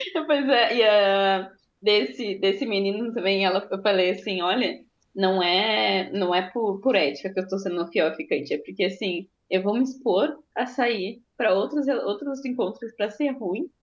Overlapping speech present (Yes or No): No